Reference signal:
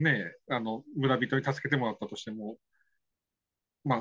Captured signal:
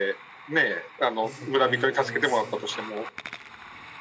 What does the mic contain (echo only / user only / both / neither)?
both